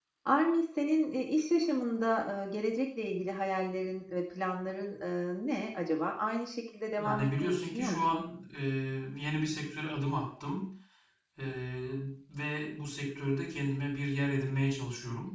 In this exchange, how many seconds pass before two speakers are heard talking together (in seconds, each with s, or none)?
7.0 s